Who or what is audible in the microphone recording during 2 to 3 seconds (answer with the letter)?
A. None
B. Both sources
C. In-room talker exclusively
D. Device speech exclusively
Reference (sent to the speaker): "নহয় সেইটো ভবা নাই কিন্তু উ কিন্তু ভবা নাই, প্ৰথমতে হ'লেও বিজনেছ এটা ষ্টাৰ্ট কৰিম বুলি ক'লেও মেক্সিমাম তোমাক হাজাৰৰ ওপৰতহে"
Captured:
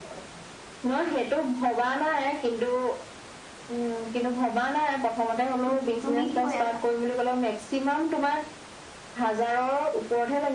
D